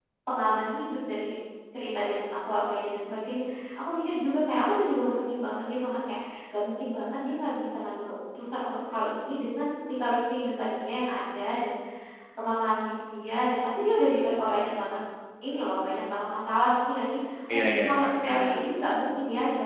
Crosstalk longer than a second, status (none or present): present